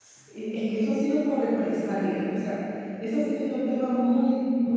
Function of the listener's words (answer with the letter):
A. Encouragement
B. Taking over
A